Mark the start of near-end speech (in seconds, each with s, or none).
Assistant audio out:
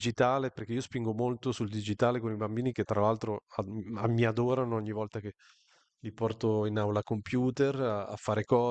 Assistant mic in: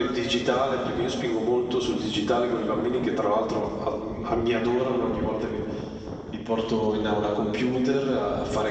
none